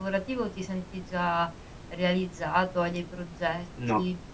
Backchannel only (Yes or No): No